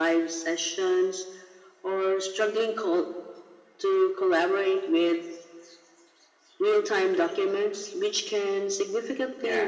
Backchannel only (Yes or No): Yes